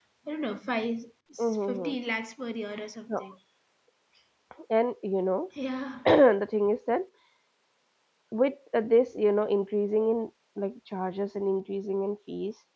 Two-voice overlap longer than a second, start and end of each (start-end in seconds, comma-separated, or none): none